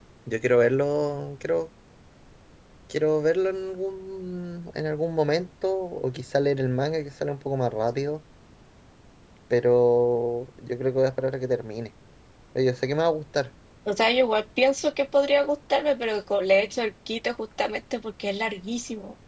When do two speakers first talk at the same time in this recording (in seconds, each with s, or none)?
none